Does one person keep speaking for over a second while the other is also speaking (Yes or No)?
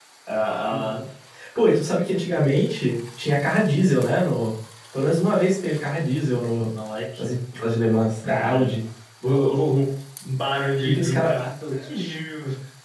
No